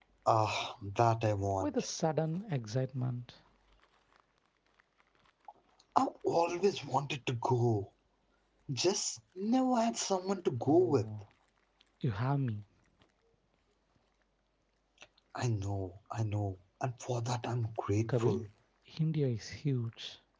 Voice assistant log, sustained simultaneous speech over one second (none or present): none